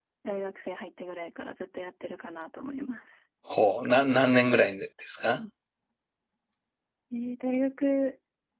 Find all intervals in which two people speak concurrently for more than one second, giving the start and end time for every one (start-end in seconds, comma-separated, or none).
none